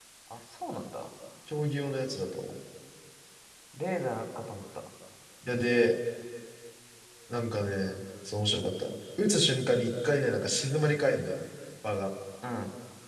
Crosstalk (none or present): none